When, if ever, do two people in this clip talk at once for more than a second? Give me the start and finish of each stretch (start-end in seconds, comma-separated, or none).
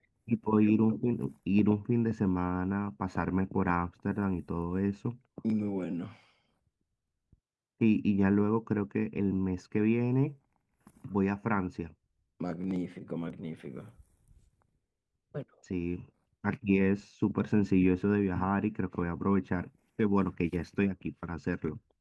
none